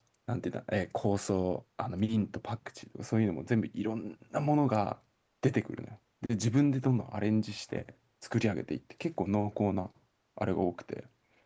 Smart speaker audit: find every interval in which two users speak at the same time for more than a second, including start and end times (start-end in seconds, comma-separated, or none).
none